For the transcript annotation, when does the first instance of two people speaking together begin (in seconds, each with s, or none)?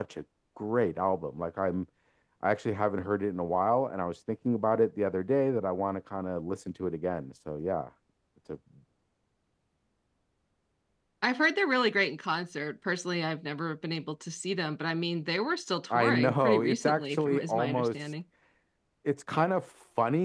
15.9 s